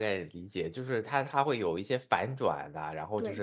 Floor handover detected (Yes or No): Yes